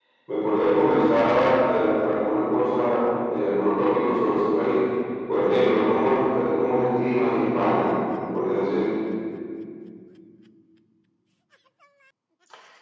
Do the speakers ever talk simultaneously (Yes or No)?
No